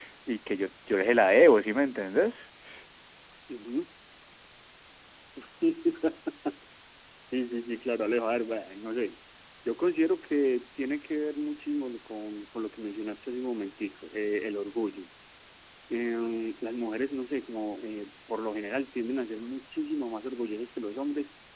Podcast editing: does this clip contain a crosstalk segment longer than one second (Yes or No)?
No